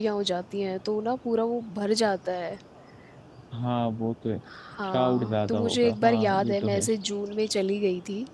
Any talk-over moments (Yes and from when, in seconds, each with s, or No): Yes, from 4.9 s